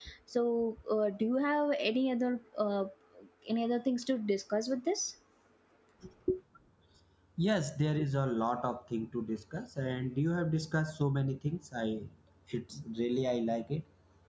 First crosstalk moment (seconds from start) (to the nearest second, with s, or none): none